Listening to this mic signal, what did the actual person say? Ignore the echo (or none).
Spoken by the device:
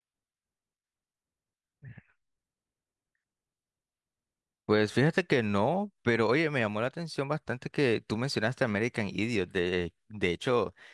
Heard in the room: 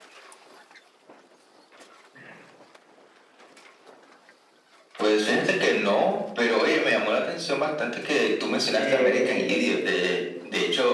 Eh,